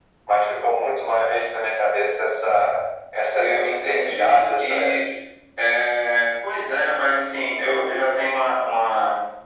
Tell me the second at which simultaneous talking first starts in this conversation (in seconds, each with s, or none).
3.3 s